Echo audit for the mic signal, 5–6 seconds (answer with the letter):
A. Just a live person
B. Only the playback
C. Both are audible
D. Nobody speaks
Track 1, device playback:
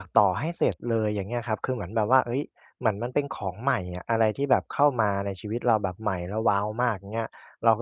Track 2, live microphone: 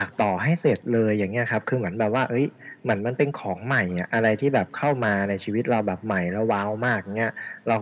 B